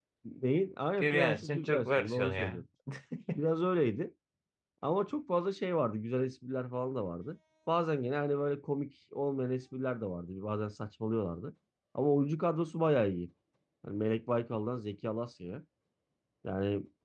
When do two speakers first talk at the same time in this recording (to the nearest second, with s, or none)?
1 s